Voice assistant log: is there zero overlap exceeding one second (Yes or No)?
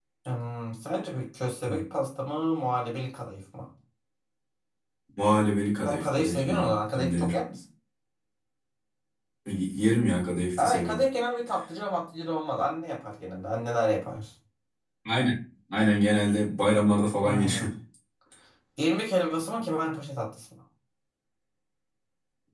No